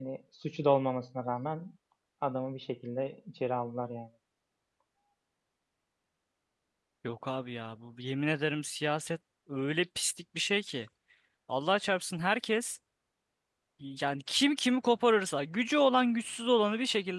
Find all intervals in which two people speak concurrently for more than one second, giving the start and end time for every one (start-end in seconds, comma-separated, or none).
none